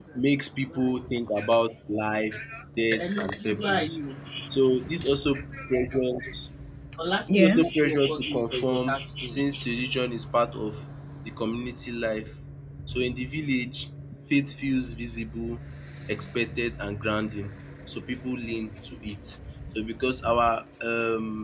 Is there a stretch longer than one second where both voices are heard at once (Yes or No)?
Yes